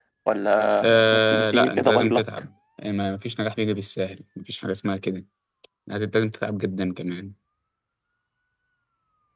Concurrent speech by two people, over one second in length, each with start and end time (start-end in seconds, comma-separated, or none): 0.8-2.2